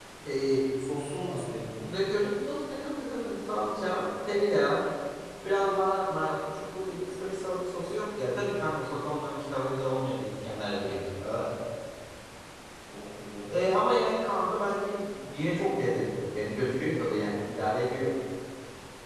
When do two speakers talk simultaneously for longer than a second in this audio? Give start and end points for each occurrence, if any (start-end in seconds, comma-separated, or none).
none